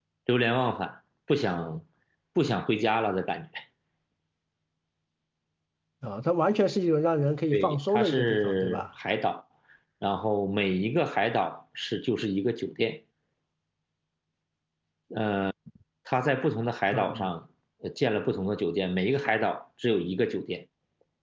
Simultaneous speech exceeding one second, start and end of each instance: 7.5-8.8

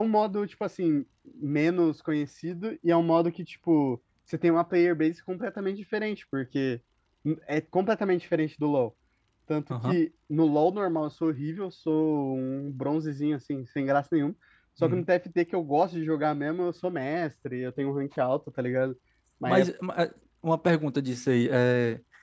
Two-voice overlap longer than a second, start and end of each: none

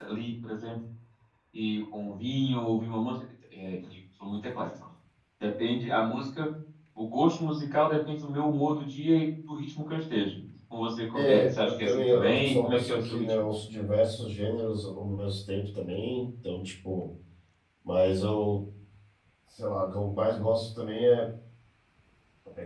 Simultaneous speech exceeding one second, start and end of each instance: 11.1-13.3

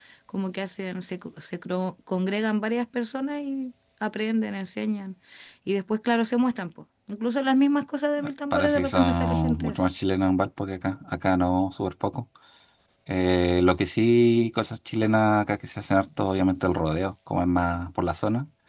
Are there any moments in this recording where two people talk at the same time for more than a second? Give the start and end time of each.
8.5-9.8

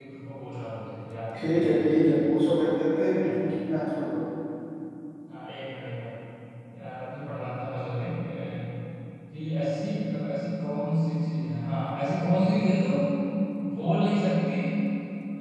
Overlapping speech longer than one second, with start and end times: none

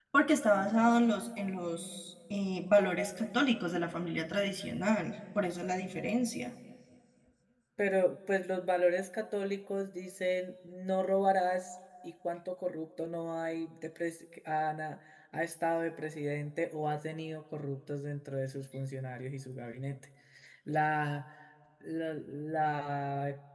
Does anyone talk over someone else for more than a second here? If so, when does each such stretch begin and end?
none

